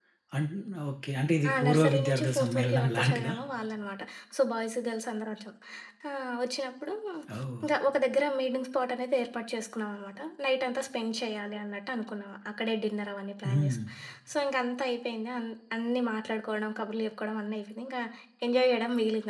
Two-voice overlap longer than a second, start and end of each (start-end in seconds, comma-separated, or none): 1.5-3.3